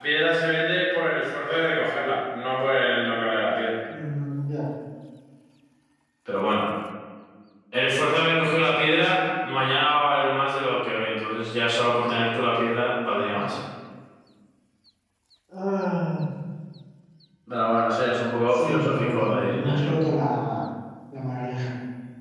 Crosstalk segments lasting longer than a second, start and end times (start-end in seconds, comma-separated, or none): 18.5-19.9